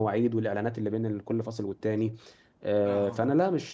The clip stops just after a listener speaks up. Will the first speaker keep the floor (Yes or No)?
Yes